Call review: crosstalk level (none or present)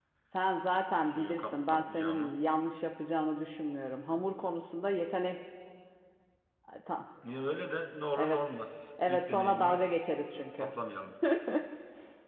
present